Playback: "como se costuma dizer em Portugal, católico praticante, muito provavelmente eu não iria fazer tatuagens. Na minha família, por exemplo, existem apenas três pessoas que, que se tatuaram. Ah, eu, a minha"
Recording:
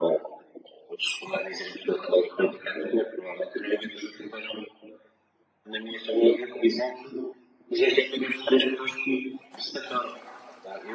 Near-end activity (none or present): none